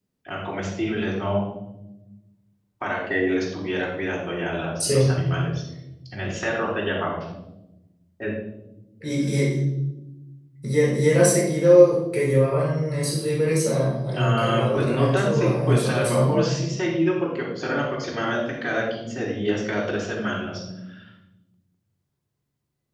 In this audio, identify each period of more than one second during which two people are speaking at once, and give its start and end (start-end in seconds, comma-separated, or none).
14.2-16.4